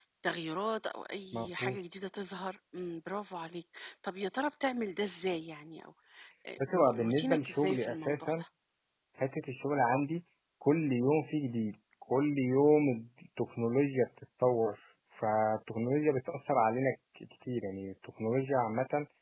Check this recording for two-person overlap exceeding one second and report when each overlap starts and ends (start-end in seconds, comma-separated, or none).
6.6-8.4